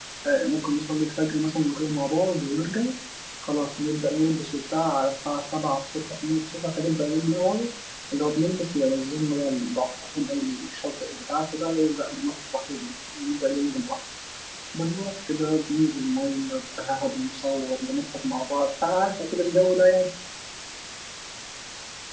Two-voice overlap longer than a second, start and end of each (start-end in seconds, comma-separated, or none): none